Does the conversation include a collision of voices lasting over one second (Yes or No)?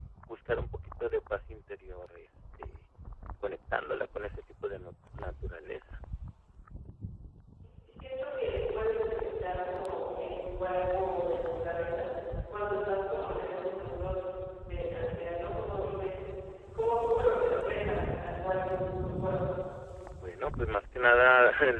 No